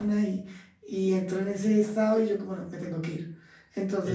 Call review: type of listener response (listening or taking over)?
taking over